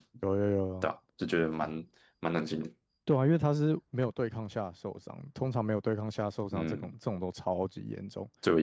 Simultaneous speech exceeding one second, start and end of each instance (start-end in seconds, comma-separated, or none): none